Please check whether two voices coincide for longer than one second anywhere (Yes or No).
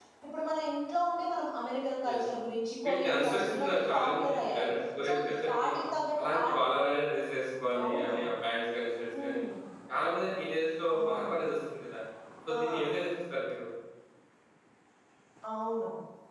Yes